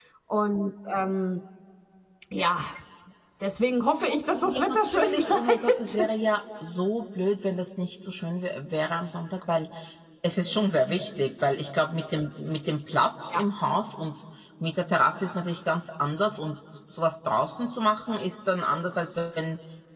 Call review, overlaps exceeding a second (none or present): present